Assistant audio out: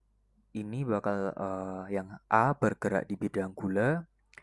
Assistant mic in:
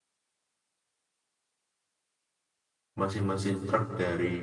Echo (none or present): none